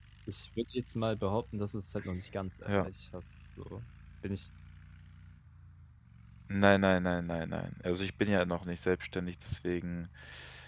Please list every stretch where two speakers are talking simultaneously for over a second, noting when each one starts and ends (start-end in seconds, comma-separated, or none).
none